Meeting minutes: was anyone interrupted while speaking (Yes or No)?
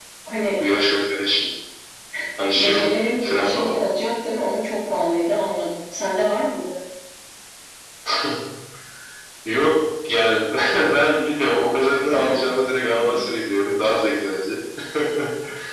Yes